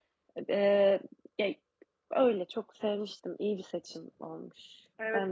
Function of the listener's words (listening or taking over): taking over